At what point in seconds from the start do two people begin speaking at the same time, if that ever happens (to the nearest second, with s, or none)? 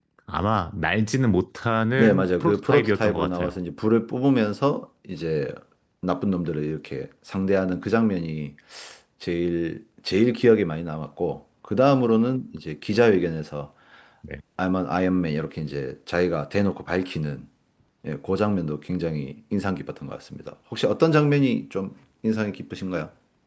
2 s